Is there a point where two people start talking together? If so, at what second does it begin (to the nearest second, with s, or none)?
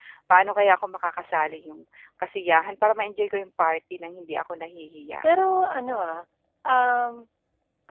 none